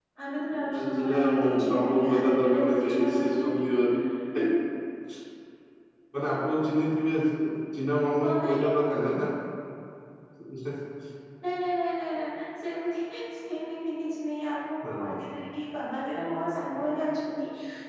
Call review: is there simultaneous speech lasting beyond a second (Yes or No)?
Yes